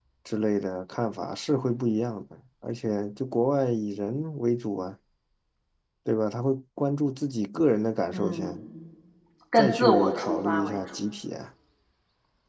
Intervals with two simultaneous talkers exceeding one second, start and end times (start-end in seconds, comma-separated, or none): 9.6-10.8